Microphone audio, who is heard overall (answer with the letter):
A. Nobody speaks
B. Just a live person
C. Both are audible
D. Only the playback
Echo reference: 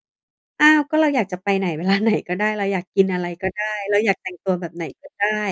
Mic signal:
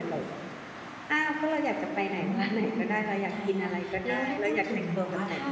C